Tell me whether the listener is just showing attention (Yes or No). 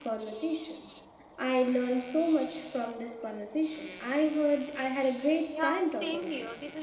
No